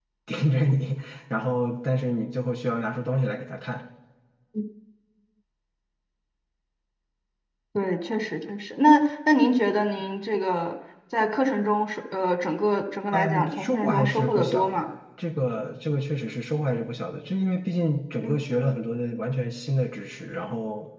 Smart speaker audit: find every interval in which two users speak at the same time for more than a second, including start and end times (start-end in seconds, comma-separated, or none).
13.1-14.9